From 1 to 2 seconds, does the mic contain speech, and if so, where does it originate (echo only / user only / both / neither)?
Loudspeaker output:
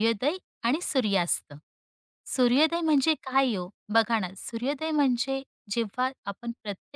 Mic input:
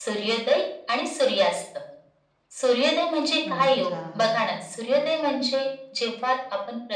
echo only